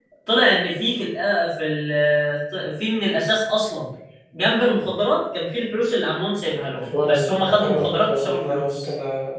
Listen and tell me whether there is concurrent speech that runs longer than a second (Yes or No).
Yes